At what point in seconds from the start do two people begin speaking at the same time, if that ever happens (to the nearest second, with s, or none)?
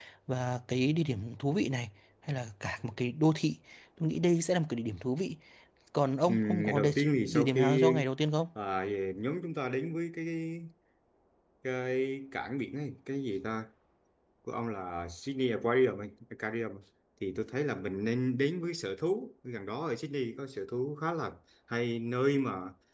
6 s